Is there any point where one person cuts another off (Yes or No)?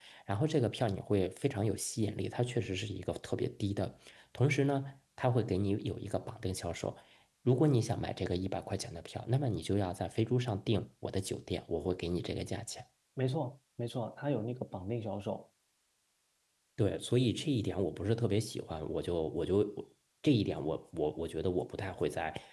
No